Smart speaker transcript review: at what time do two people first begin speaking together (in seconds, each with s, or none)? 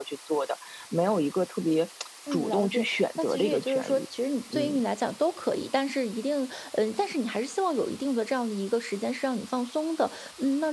2.3 s